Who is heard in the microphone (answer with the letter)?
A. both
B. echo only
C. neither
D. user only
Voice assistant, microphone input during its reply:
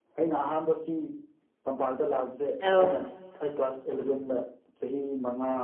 A